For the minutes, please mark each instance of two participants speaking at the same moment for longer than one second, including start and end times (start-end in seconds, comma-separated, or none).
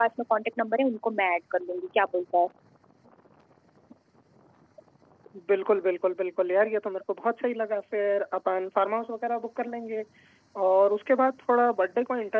none